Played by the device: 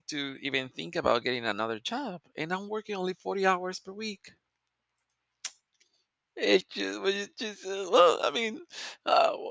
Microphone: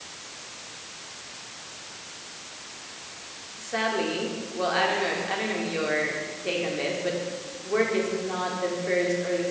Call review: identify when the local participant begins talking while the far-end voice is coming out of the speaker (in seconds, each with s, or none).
3.6 s